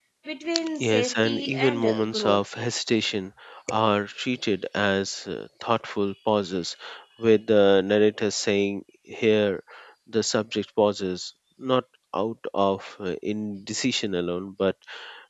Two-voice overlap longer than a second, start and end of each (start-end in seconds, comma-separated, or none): 0.8-2.4